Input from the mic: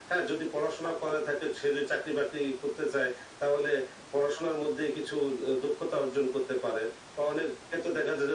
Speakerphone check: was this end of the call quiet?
Yes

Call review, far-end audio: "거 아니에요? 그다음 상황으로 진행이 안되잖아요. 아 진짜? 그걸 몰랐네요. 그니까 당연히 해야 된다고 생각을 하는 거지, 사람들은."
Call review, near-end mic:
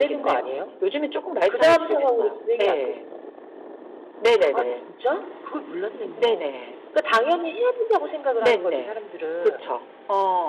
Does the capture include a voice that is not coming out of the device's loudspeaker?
Yes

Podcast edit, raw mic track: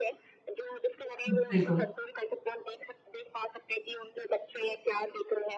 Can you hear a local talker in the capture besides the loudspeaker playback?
Yes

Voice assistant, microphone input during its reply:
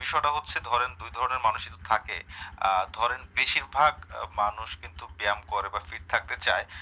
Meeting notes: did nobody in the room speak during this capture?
Yes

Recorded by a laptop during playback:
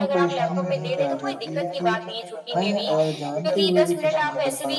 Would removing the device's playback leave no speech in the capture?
No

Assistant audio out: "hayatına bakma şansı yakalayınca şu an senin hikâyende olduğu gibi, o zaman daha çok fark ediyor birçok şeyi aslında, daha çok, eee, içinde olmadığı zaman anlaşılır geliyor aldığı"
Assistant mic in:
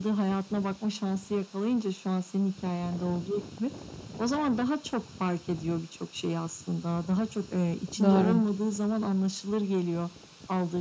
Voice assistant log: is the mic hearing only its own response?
No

